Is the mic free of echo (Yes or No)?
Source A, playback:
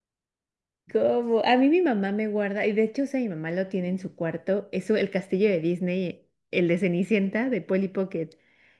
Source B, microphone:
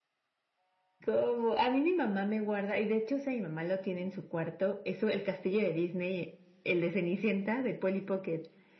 No